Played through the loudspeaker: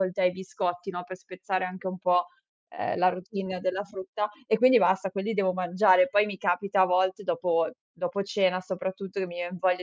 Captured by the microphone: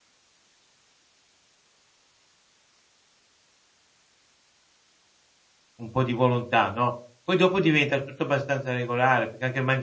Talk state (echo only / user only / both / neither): user only